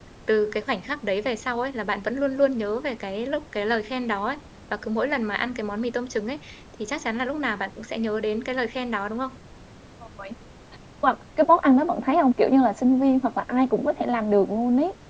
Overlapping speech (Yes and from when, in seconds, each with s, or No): No